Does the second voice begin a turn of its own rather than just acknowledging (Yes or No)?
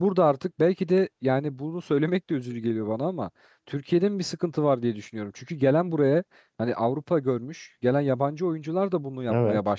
No